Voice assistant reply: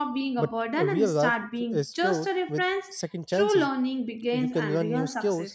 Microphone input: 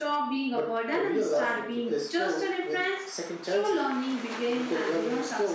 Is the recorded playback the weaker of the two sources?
No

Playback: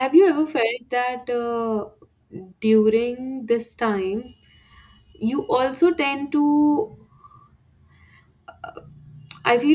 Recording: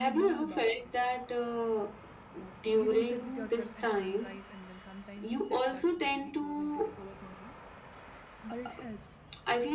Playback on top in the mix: Yes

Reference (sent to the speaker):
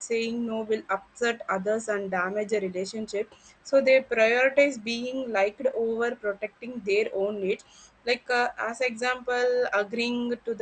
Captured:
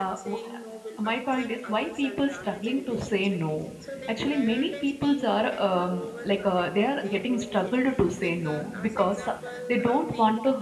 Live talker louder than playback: Yes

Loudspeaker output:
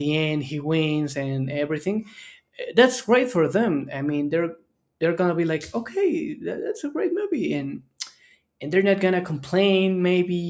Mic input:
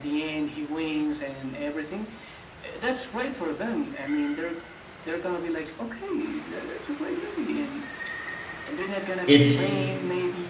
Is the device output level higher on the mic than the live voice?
No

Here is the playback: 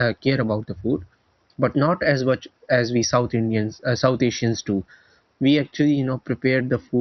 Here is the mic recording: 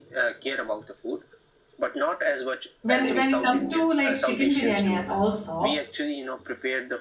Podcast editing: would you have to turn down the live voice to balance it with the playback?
Yes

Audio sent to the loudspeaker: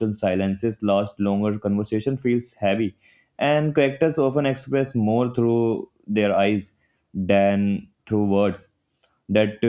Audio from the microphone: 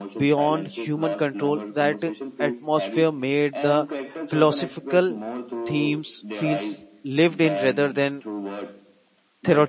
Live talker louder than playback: Yes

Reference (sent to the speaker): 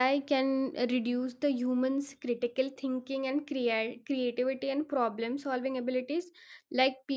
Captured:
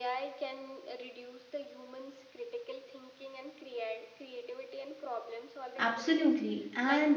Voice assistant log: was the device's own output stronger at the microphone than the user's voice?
No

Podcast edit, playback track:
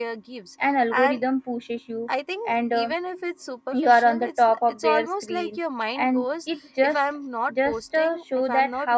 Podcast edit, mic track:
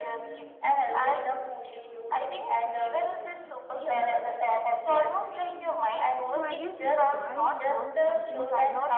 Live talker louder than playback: No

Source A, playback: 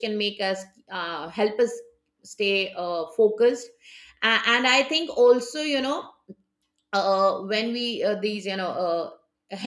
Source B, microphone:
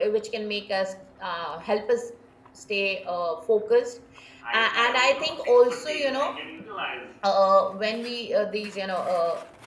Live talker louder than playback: No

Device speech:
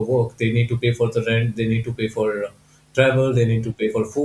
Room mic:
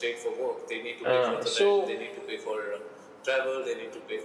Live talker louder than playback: Yes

